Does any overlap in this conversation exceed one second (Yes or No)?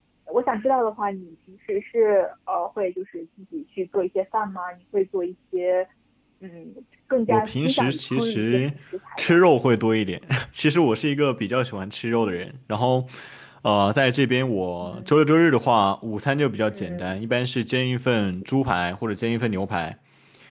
Yes